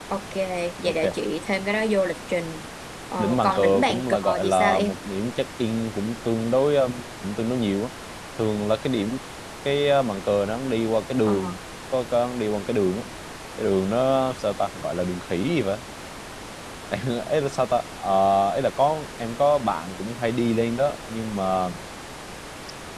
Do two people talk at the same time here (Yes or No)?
Yes